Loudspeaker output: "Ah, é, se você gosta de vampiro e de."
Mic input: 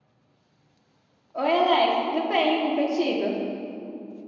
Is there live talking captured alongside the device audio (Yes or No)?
Yes